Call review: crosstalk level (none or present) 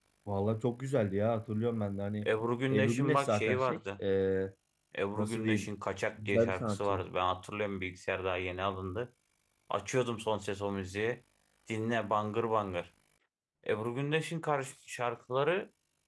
present